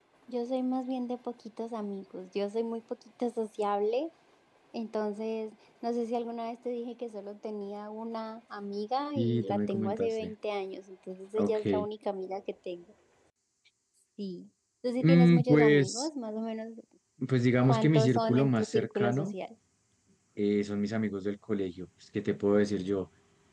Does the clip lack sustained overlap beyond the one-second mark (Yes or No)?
No